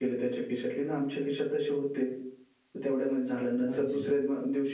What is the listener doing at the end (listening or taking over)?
listening